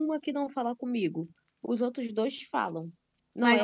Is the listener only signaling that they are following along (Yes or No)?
Yes